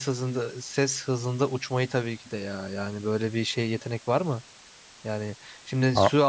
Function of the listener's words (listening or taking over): listening